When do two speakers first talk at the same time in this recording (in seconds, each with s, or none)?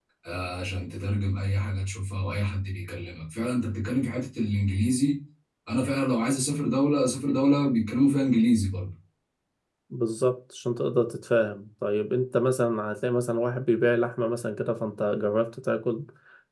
none